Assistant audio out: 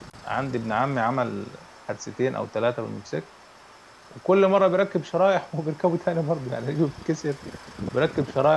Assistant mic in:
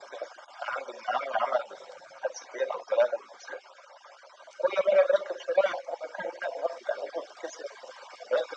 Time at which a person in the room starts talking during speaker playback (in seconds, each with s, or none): none